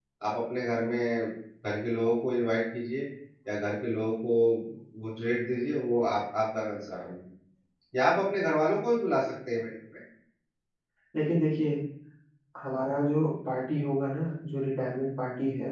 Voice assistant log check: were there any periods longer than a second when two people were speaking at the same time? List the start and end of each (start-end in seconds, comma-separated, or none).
none